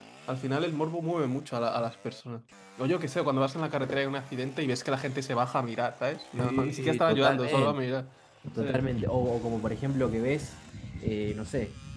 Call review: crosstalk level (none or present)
present